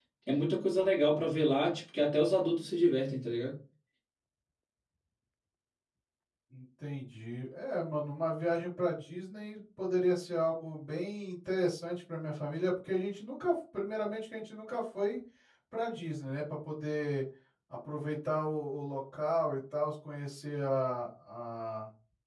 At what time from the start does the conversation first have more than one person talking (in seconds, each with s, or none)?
none